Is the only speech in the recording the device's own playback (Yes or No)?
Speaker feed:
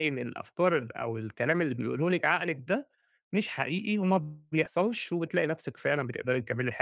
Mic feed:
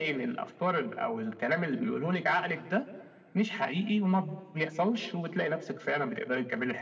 Yes